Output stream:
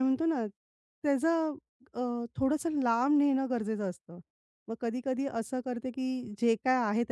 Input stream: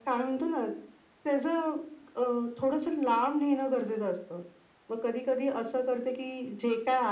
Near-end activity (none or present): none